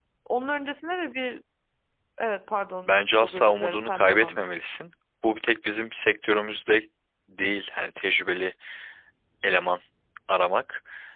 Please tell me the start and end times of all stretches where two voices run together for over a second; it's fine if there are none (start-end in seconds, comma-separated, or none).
2.9-4.4